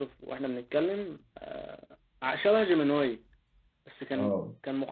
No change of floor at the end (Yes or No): Yes